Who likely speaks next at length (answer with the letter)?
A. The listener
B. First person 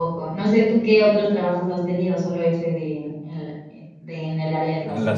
A